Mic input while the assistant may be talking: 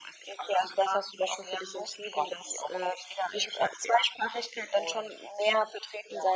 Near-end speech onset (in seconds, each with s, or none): none